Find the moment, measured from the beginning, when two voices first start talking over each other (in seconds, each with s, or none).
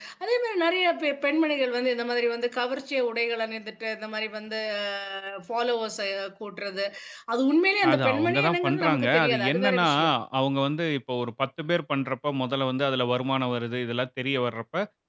7.9 s